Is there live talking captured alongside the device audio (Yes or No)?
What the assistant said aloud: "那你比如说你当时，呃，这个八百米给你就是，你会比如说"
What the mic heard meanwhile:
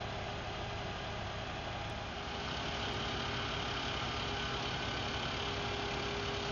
No